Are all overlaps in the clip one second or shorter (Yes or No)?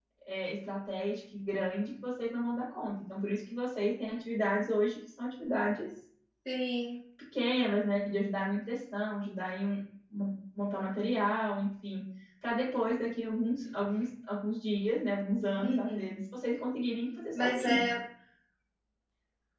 Yes